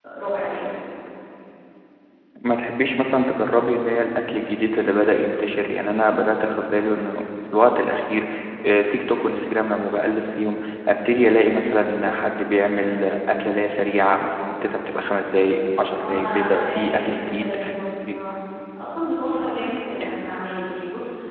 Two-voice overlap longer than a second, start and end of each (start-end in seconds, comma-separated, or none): 15.9-17.5